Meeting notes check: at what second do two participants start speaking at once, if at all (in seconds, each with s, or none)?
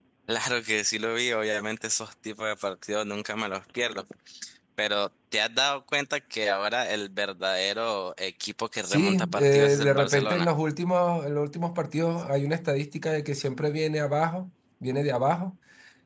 8.8 s